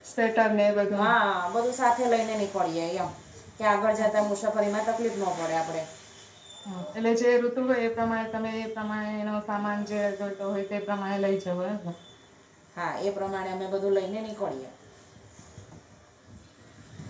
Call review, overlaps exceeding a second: none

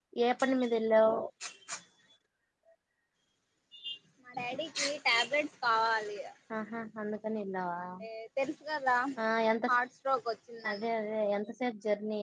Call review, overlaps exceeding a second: none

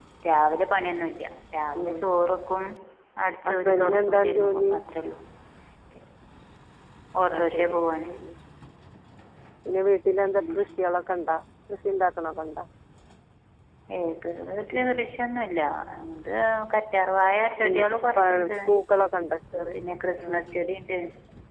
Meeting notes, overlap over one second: present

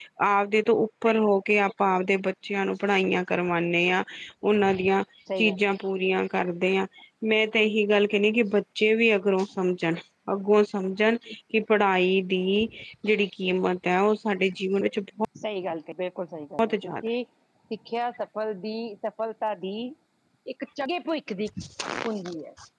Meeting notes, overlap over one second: none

